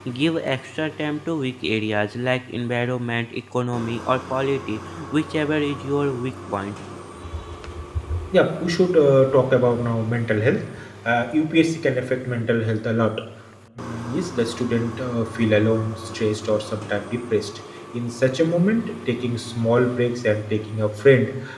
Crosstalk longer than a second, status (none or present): none